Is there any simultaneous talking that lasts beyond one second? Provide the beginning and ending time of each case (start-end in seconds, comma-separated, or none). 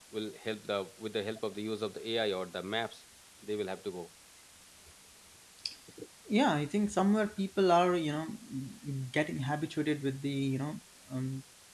none